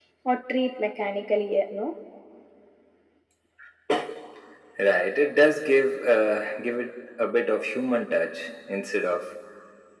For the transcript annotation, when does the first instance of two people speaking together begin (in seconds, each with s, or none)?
none